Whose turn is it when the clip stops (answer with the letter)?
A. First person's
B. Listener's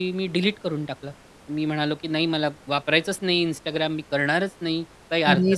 A